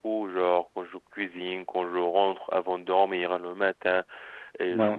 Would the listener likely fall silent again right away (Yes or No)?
Yes